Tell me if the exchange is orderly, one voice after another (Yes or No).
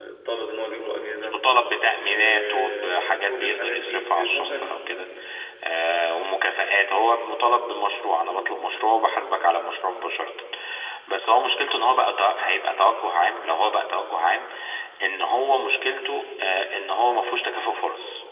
No